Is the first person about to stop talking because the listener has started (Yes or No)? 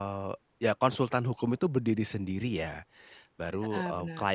No